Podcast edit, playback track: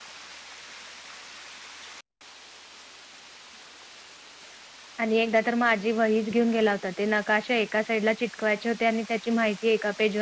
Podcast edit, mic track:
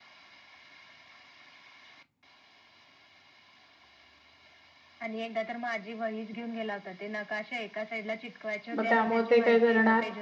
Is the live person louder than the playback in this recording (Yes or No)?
Yes